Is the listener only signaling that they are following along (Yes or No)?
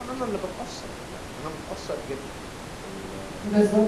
No